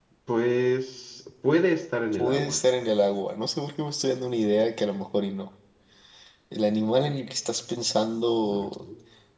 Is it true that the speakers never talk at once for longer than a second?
Yes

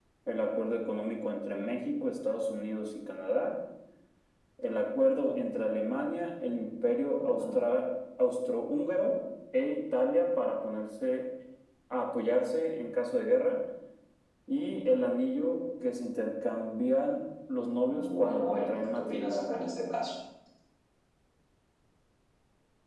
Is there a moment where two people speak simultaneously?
Yes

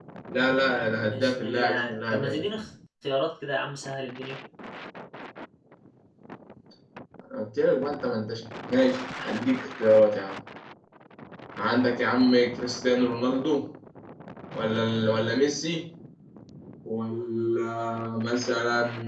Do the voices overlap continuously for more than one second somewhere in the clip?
Yes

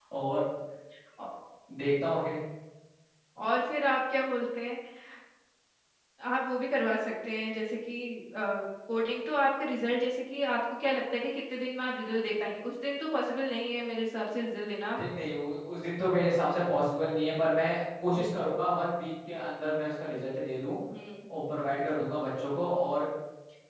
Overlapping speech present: No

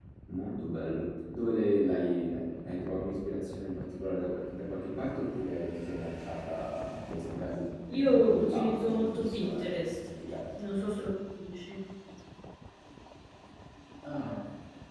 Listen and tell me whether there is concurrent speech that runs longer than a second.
Yes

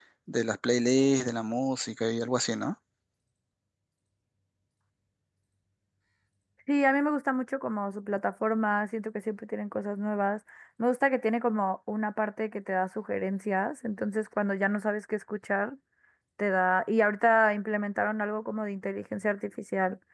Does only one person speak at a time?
Yes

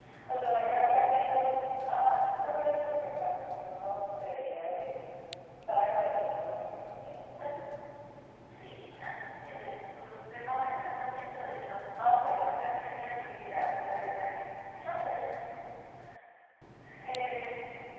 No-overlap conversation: No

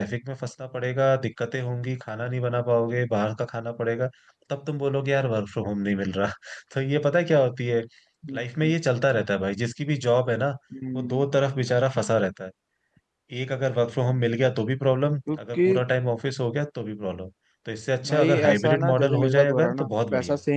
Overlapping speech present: Yes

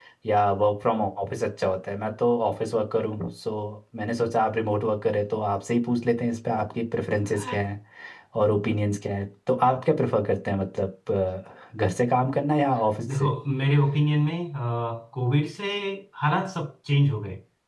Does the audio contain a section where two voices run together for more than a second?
No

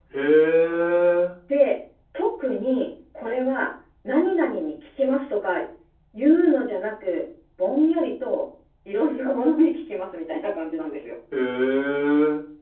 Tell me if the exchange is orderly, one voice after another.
Yes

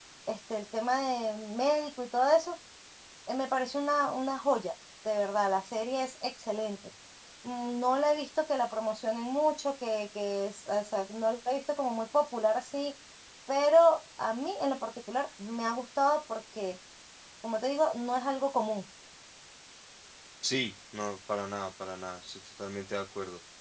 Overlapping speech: No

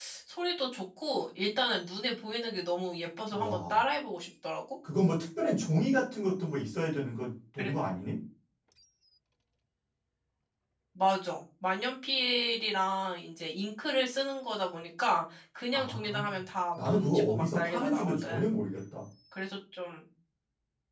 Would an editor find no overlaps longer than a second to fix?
No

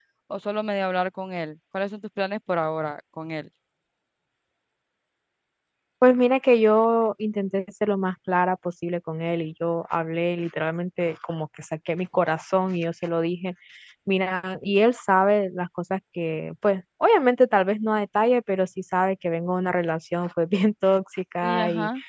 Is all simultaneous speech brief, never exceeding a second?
Yes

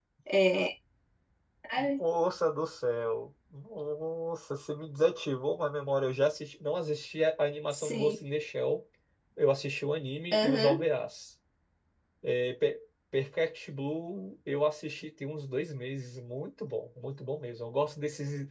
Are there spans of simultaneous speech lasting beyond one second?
No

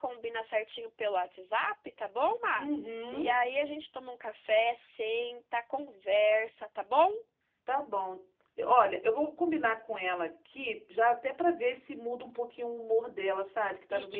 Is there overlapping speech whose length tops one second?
No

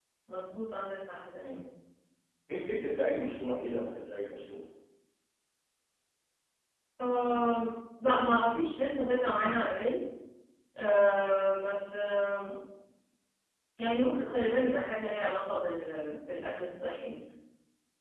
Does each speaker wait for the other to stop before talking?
Yes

